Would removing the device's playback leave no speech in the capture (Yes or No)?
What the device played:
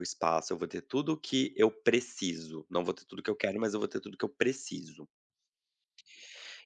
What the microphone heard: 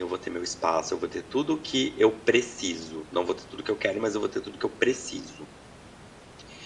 Yes